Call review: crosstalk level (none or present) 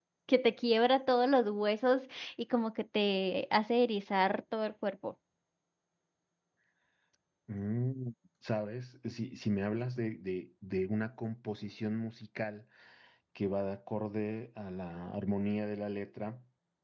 none